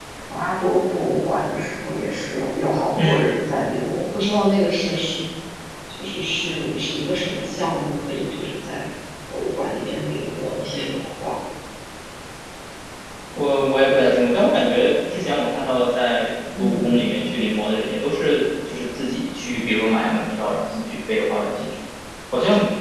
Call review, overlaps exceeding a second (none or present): none